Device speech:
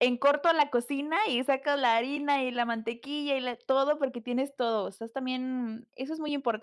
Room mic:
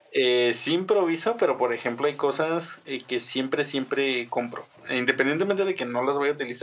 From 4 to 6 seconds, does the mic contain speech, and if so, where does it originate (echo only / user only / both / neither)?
user only